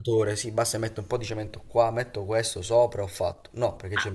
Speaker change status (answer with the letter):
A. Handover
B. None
A